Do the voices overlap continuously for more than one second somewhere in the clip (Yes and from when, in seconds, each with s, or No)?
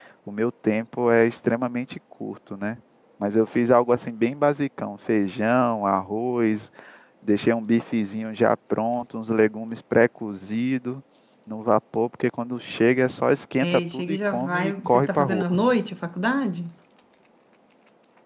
Yes, from 13.6 s